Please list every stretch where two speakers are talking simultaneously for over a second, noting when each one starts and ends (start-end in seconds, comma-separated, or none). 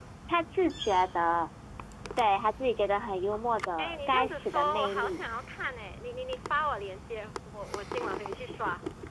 3.8-5.2